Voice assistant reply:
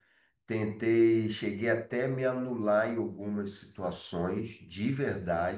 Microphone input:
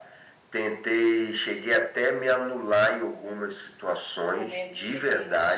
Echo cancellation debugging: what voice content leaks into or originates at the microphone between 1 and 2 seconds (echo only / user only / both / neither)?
echo only